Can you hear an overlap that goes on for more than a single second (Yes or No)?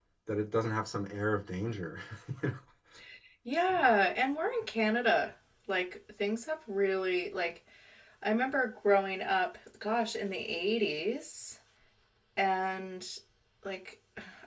No